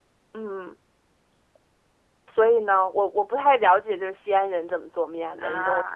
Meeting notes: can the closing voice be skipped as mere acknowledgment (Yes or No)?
No